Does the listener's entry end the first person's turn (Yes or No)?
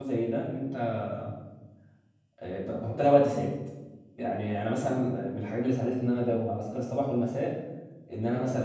No